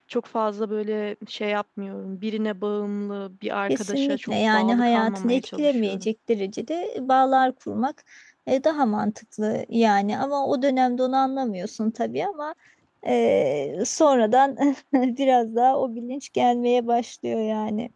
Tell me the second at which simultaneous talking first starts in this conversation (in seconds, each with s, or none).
3.7 s